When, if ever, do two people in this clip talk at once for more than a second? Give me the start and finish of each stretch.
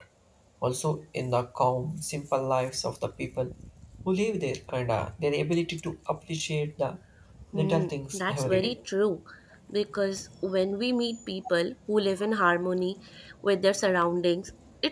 7.5-8.8

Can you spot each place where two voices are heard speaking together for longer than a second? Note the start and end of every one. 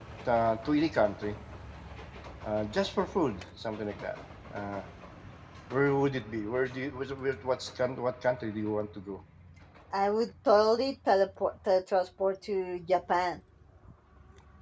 none

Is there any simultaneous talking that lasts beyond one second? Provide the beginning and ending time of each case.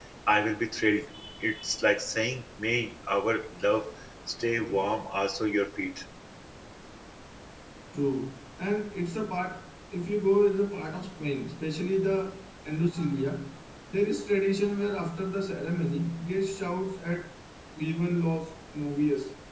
none

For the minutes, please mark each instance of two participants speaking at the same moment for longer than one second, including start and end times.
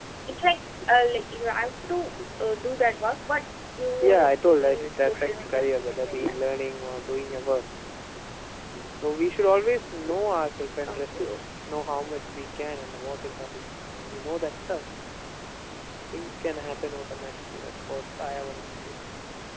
4.0-6.3

